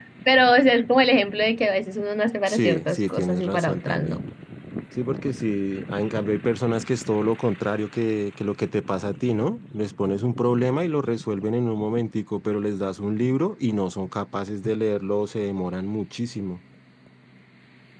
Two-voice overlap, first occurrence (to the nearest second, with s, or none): 2 s